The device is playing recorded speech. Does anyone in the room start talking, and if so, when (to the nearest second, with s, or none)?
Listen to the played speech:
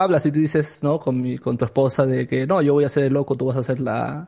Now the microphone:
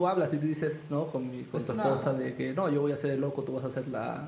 2 s